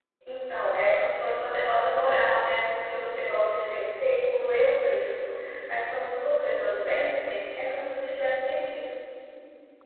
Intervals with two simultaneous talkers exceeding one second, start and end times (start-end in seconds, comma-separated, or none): none